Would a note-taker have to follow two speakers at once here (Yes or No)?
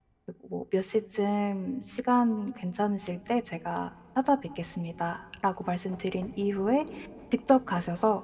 No